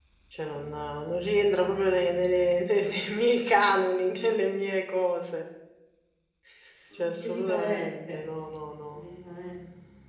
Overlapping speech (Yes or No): Yes